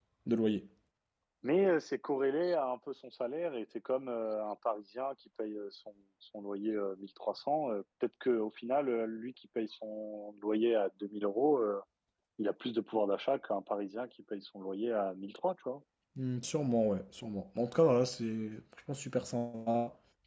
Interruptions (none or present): none